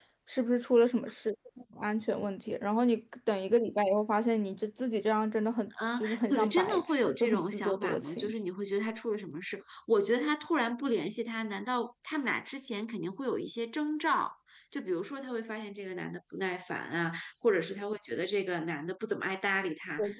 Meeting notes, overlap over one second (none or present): present